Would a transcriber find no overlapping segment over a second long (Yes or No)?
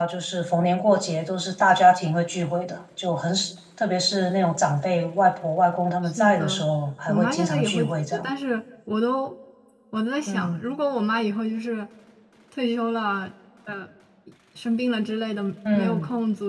No